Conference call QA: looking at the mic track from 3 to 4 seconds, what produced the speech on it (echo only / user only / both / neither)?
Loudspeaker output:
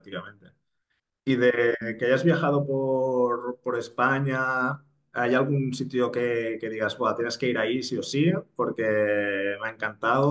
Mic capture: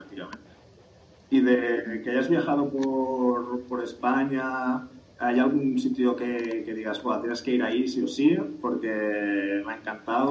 echo only